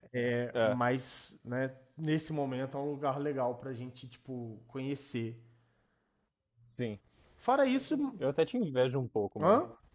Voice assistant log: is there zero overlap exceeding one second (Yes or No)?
Yes